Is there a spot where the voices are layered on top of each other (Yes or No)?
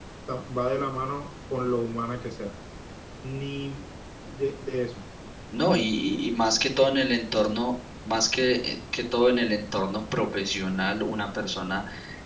No